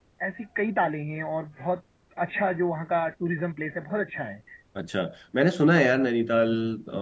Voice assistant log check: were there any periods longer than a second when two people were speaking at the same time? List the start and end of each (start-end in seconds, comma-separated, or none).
none